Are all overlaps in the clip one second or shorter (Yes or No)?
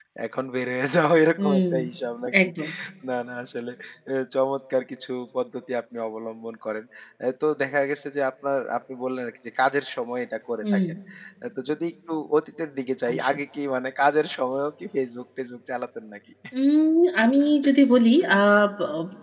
Yes